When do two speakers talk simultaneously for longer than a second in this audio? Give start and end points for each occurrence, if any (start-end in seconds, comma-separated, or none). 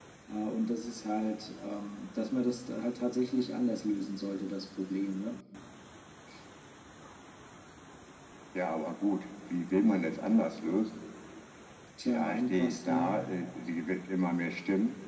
12.1-13.3